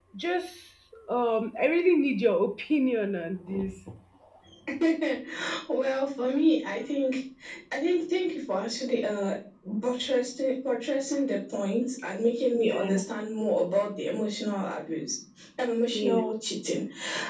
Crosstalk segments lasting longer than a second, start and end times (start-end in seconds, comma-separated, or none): none